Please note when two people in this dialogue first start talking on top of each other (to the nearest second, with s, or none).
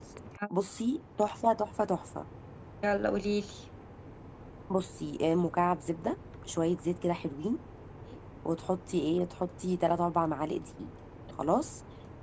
none